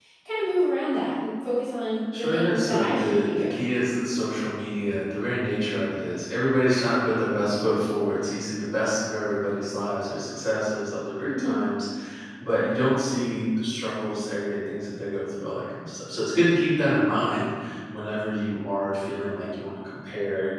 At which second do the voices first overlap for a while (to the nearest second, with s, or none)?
2 s